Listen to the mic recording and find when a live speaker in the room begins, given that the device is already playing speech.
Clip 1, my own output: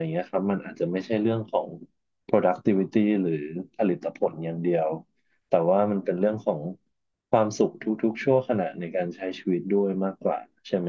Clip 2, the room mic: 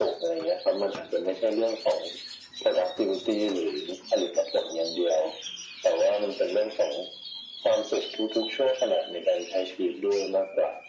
none

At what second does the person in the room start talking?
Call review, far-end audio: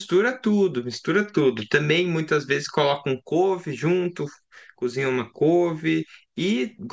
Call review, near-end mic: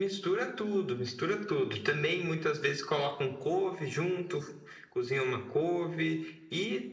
none

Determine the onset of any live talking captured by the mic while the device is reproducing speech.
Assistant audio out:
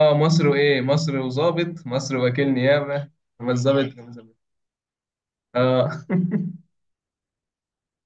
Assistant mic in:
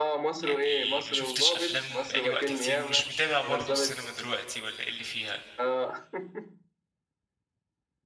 0.4 s

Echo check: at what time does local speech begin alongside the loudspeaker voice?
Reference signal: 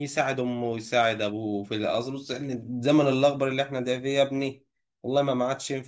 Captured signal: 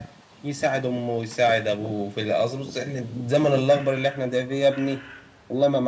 none

